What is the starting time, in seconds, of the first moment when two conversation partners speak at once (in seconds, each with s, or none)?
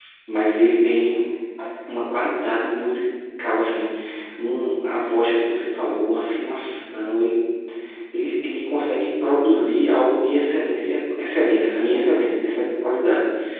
none